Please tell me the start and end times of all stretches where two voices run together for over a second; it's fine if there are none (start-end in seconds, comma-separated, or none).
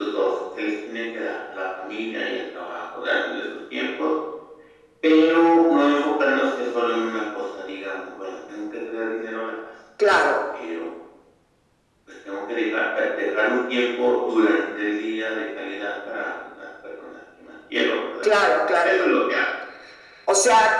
none